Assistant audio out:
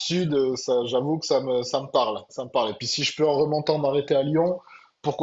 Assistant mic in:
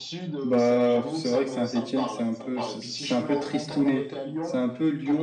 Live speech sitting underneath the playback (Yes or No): No